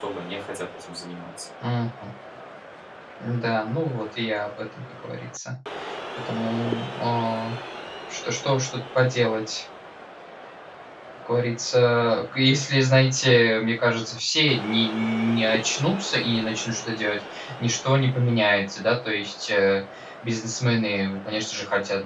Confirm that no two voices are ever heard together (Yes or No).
Yes